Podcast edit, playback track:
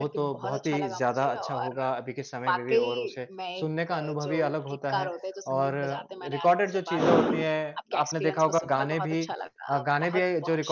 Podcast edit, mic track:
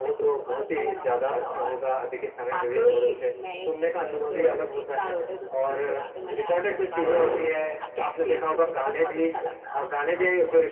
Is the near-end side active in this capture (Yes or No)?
No